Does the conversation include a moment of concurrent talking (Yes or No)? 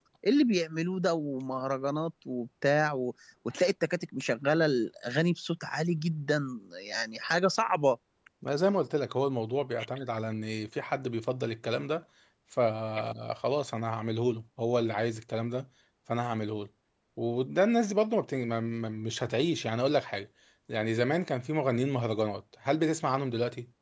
No